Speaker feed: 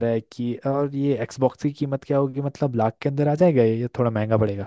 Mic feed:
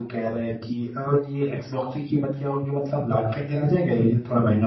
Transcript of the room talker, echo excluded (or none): none